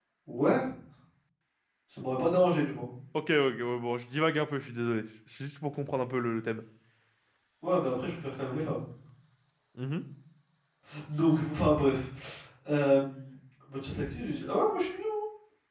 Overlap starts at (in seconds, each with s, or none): none